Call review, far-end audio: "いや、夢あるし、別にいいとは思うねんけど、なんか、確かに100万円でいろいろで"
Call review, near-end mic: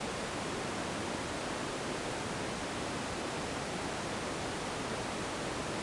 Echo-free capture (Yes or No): Yes